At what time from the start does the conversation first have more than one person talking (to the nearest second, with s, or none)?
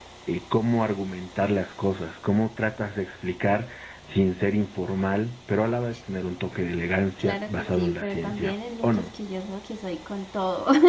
7 s